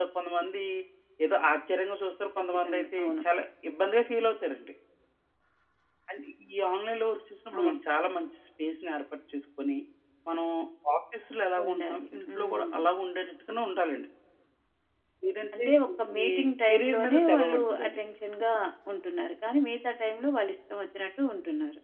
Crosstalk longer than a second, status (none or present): present